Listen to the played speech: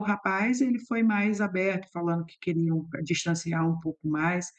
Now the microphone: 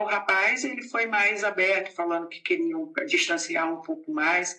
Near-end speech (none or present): none